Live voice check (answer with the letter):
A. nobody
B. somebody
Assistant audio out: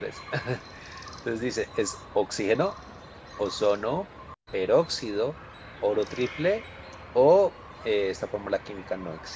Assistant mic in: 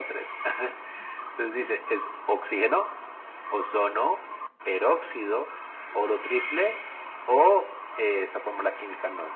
A